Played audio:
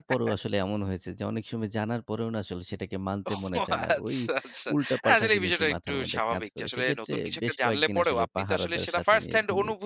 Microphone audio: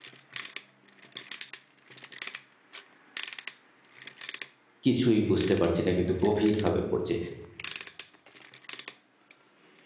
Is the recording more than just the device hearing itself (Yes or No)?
Yes